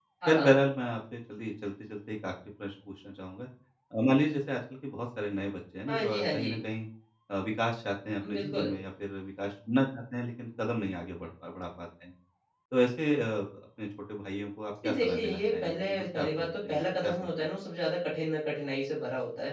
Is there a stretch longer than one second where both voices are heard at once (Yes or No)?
Yes